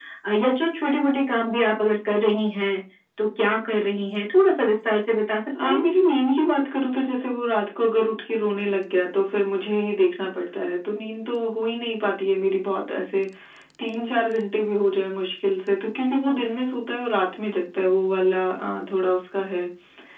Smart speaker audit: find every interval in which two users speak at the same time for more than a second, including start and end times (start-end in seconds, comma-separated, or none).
none